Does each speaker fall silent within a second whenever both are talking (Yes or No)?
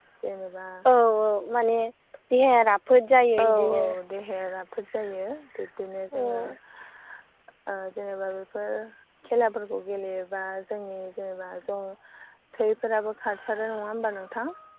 Yes